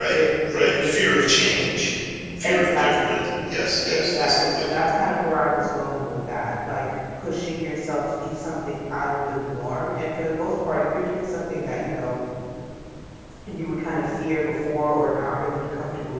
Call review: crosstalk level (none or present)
present